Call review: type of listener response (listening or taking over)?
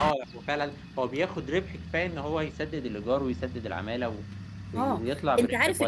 taking over